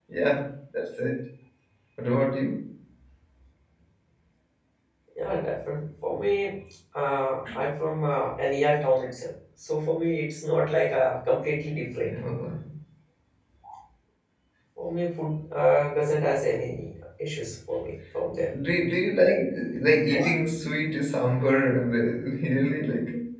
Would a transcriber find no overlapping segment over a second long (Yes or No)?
Yes